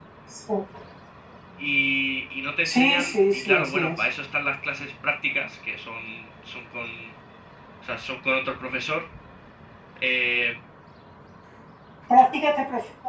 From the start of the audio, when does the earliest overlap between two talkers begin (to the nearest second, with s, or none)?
3 s